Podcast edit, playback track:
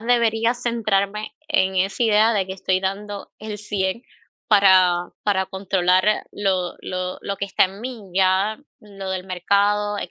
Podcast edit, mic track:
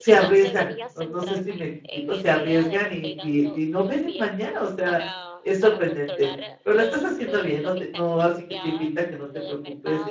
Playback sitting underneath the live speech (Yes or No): Yes